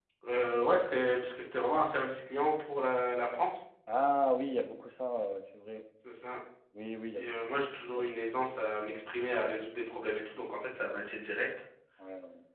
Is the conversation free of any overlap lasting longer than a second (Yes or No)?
Yes